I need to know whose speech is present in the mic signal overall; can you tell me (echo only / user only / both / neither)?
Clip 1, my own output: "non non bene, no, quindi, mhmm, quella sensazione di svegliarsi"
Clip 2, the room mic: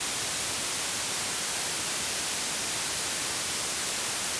neither